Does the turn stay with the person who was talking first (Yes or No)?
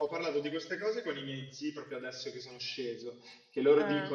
Yes